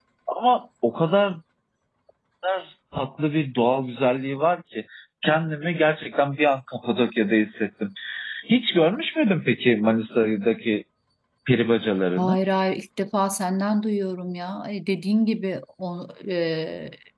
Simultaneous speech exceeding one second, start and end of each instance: none

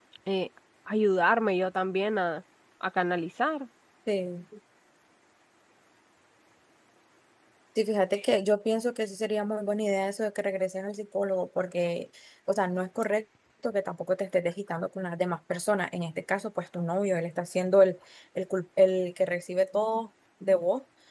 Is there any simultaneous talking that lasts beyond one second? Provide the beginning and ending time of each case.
none

